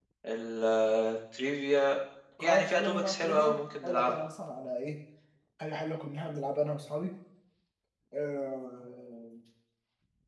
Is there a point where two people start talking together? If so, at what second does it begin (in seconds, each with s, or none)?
2.4 s